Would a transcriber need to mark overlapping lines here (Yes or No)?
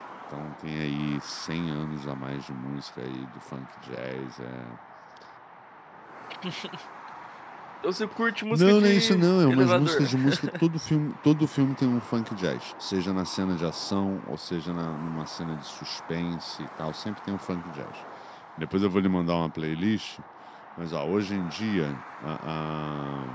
Yes